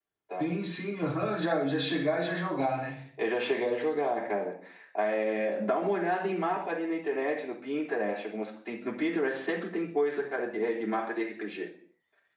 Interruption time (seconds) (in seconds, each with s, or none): none